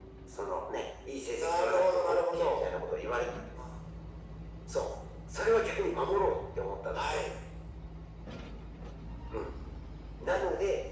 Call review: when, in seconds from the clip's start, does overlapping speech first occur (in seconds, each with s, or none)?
1.3 s